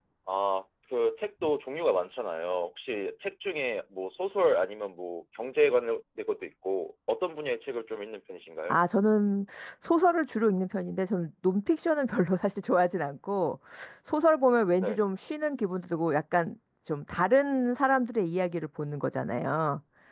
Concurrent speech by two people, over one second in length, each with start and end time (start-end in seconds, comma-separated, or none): none